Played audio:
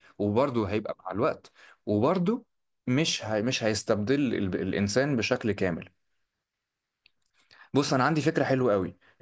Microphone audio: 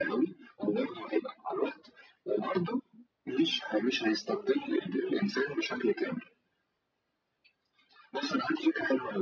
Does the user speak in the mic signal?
No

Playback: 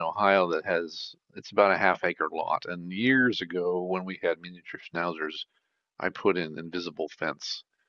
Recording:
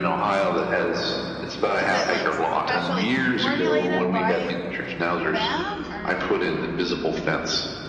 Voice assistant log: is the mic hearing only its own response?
No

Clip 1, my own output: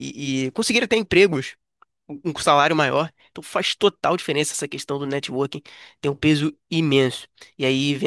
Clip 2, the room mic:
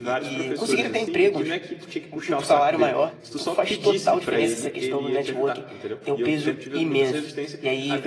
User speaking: Yes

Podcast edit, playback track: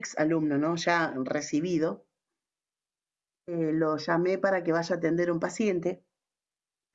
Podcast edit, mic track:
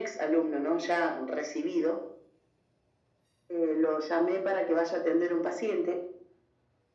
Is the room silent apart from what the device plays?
Yes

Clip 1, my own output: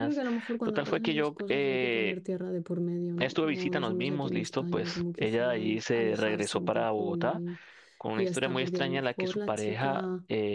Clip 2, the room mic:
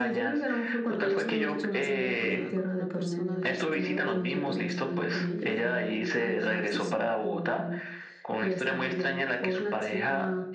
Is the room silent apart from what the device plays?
No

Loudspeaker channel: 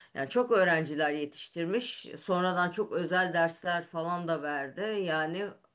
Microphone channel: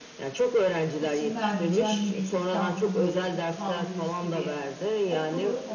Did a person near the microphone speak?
Yes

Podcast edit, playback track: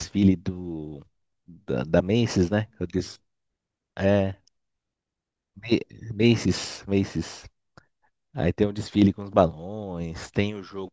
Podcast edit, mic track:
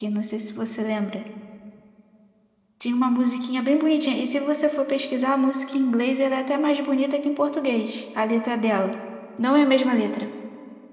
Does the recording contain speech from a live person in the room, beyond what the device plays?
Yes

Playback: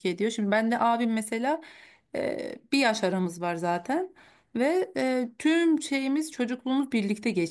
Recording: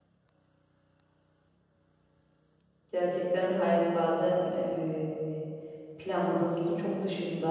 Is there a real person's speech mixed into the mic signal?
Yes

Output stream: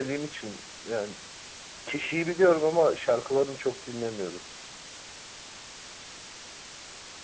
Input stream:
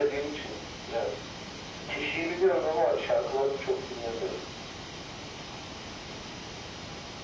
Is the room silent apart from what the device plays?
Yes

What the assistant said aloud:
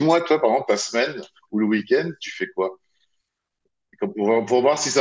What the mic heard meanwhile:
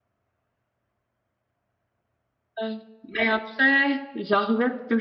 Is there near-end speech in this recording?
Yes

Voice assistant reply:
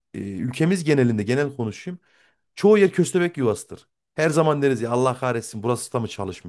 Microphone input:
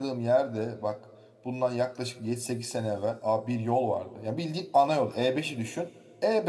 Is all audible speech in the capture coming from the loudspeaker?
No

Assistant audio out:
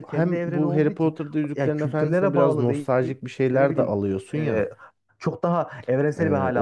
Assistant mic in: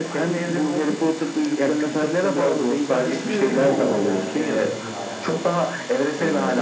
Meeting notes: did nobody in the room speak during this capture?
No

